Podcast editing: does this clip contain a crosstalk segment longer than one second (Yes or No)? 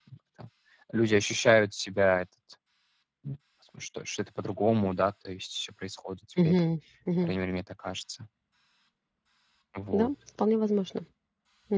No